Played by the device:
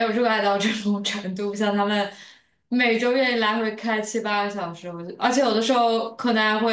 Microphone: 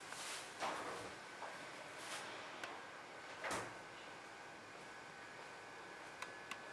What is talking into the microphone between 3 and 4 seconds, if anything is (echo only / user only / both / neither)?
neither